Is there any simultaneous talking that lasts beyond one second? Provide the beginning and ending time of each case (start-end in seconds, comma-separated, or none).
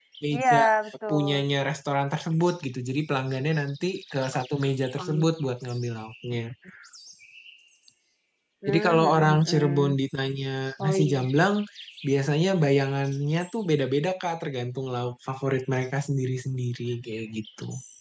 8.7-10.0